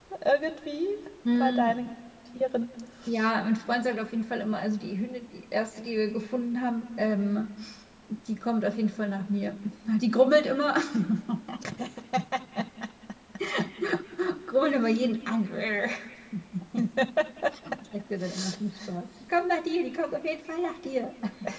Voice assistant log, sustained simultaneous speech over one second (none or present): none